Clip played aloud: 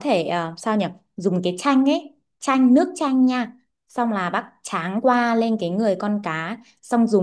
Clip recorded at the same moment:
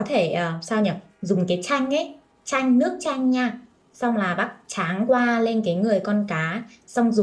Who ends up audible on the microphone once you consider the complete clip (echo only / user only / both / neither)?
echo only